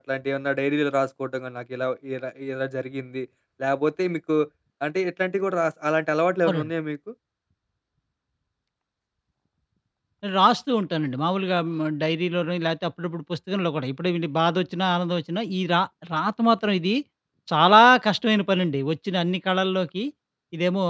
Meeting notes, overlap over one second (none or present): none